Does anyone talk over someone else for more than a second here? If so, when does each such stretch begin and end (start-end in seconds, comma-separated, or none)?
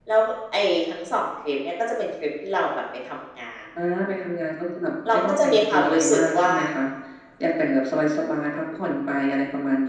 5.1-6.5